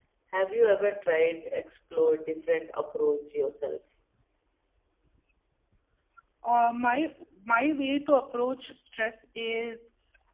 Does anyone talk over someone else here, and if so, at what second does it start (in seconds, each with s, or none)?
none